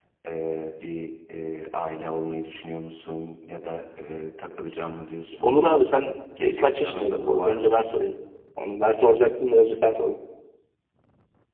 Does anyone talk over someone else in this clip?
Yes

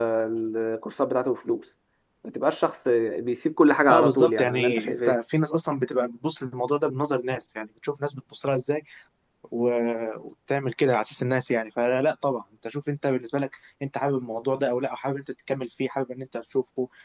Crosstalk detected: Yes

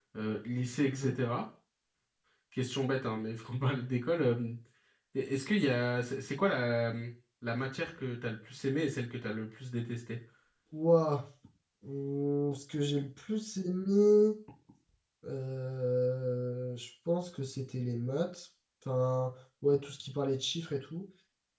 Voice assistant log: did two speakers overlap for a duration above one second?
No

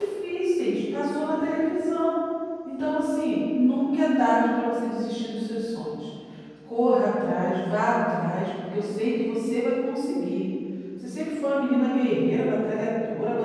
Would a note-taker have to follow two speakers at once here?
No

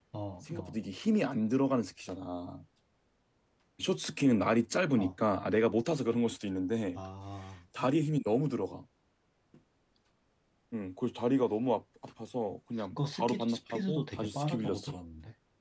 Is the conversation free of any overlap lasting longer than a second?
No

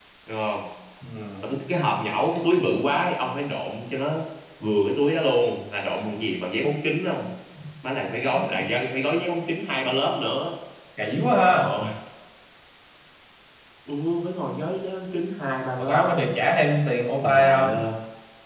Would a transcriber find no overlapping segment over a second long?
Yes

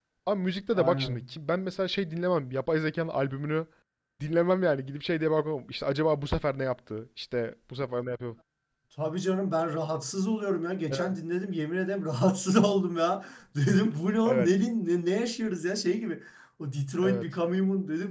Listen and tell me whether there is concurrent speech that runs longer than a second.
No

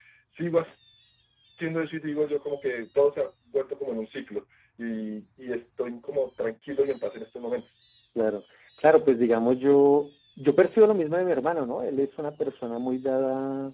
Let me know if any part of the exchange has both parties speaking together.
No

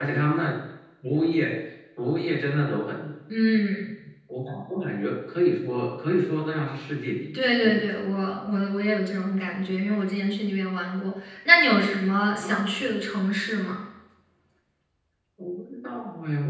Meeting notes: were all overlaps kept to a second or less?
Yes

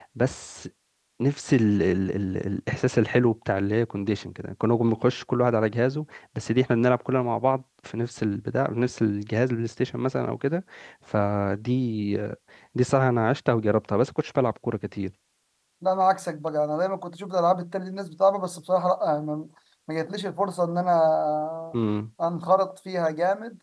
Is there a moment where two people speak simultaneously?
No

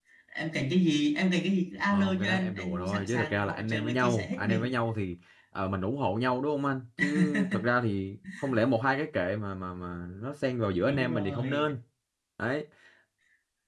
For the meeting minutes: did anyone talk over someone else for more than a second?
Yes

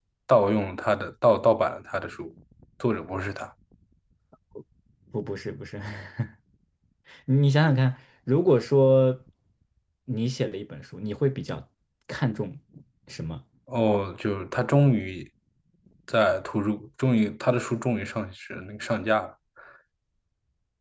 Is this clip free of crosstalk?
Yes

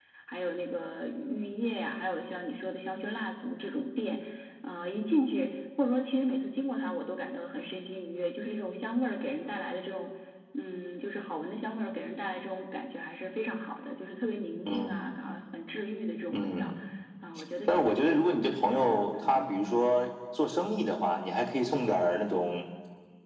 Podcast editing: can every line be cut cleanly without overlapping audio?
No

